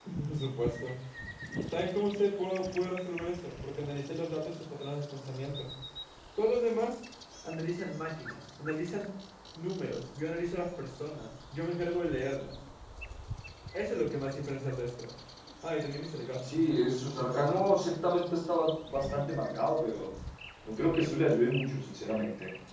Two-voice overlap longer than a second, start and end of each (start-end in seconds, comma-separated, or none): 16.4-17.9